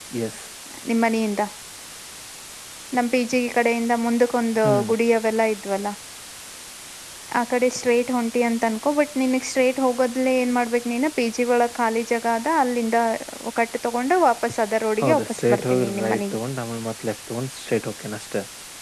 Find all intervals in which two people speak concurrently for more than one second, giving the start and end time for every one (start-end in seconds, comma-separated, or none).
15.0-16.4